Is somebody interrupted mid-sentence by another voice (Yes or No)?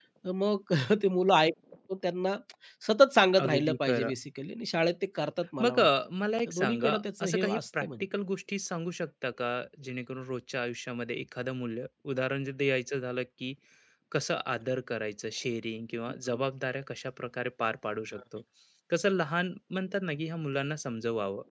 Yes